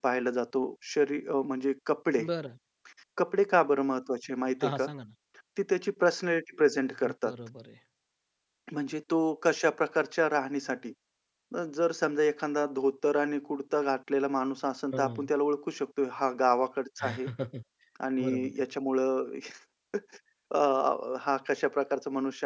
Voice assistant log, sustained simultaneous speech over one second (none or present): none